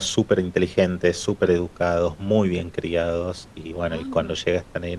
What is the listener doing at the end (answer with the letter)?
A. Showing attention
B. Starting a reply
A